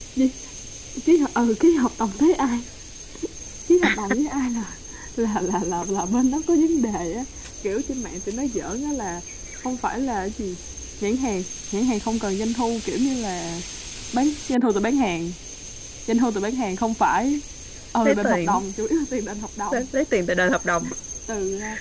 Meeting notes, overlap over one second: none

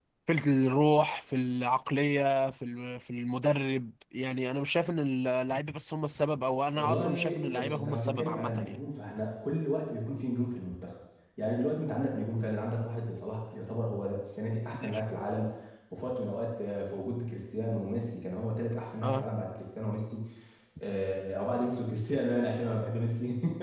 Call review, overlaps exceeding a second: present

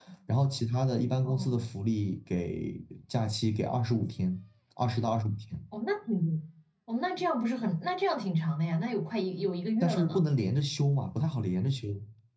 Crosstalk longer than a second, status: none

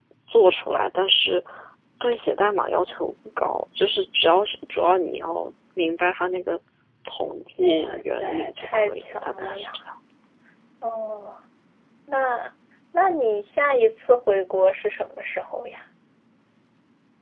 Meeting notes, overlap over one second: present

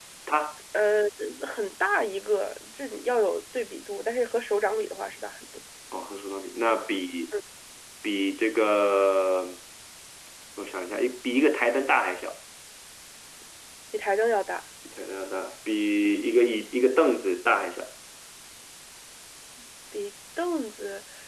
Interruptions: none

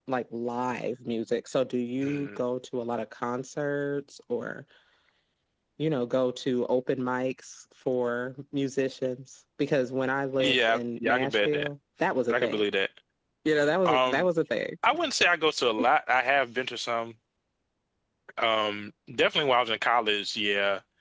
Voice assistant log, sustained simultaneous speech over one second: present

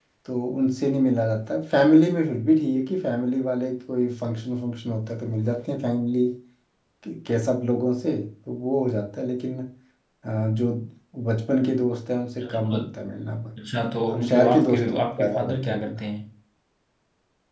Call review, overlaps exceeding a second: present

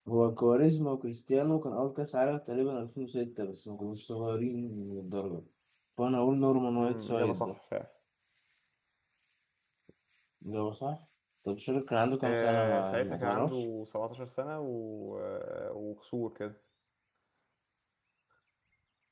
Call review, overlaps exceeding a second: present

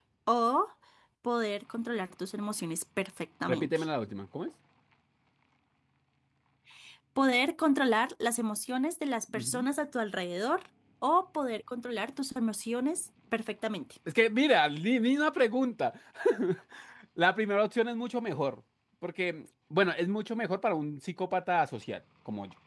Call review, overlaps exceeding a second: none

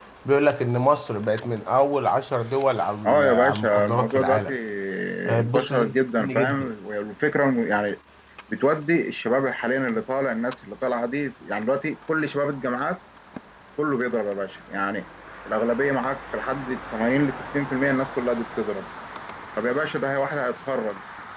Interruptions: present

